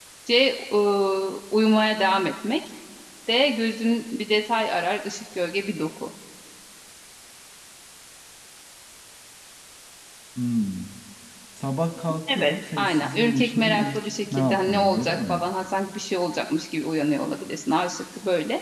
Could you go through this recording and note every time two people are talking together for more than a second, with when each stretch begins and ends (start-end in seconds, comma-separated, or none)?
12.4-15.4